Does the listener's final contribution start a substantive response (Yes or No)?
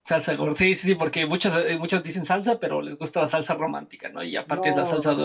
Yes